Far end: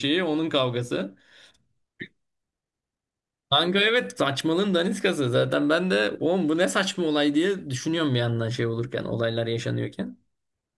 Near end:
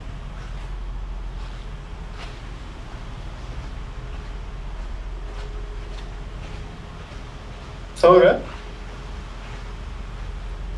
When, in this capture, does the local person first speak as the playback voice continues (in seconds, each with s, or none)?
7.9 s